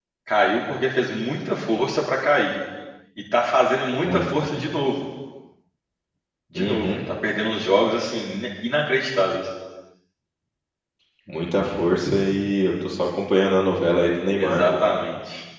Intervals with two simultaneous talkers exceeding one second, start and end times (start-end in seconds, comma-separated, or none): none